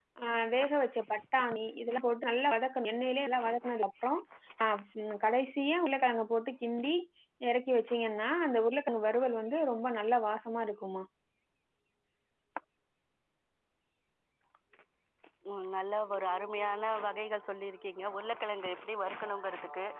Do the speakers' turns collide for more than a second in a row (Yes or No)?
No